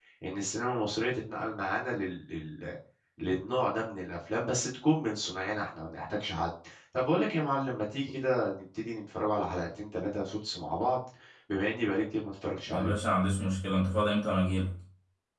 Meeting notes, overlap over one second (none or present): none